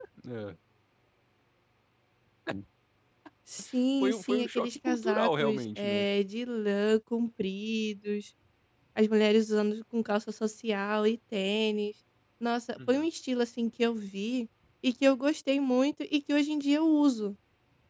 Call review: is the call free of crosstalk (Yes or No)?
No